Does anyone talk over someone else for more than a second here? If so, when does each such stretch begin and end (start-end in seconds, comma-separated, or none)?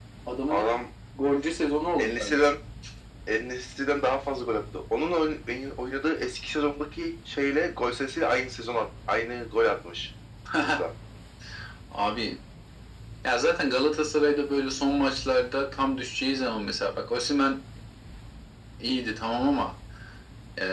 none